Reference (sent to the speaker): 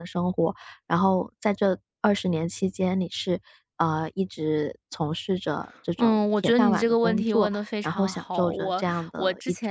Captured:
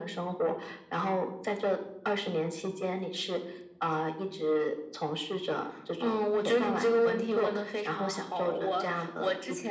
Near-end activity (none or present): none